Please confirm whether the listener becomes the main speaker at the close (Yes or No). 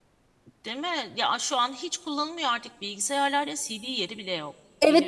Yes